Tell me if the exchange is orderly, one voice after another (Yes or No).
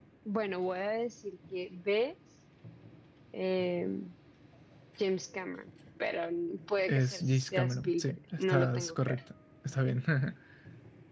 No